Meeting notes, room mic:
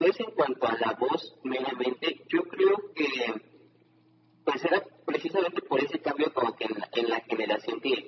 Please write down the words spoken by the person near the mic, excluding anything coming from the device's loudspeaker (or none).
none